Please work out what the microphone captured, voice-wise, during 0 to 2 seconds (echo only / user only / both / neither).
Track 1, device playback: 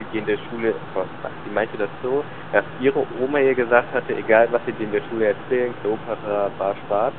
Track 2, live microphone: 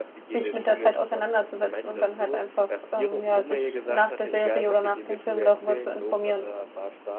both